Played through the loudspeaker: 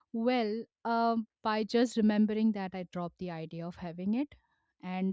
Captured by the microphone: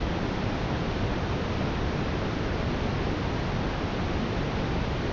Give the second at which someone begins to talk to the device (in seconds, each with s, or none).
none